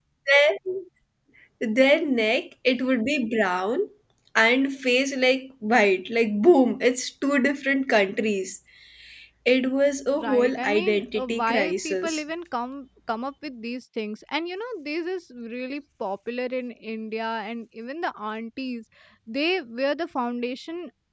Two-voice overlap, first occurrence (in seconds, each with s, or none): 10.2 s